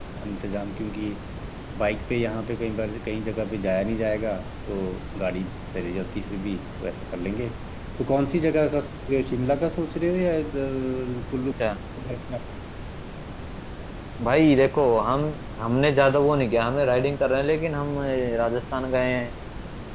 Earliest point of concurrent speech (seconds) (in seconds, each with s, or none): none